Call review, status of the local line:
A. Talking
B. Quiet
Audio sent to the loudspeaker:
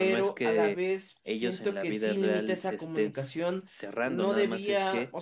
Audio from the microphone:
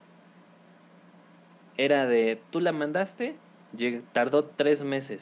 A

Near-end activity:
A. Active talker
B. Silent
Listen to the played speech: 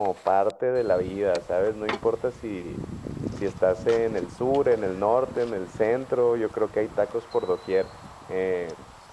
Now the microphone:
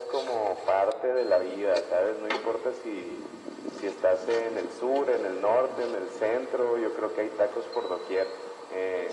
B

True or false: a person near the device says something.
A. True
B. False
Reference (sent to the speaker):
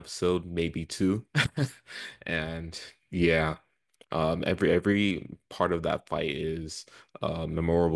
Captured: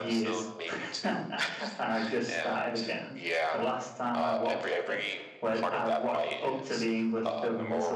A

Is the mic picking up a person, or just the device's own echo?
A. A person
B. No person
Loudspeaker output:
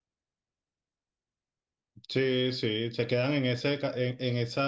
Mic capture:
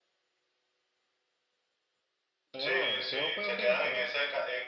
A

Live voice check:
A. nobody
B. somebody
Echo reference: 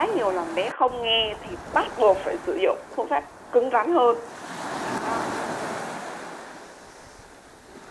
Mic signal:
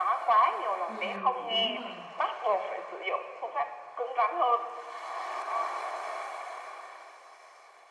B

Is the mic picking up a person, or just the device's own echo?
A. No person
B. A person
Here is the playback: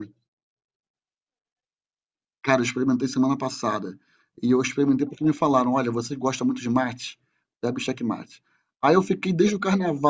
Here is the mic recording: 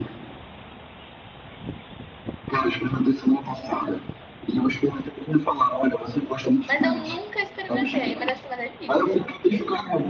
B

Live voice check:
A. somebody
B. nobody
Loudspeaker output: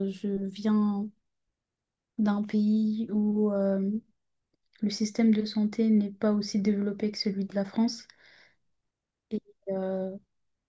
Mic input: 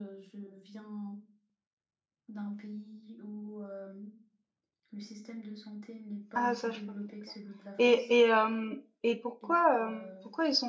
A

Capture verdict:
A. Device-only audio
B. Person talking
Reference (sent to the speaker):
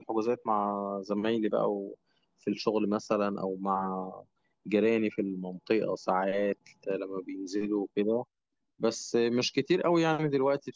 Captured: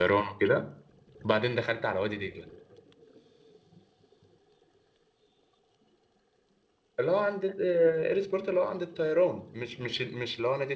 B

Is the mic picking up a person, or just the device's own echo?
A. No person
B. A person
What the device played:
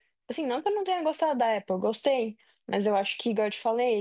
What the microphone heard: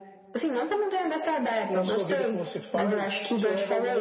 B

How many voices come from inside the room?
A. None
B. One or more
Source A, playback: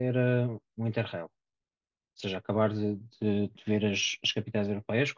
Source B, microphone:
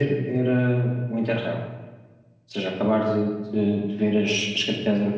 A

